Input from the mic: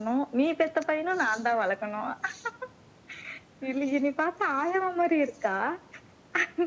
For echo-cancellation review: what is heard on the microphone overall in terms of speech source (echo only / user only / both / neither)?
echo only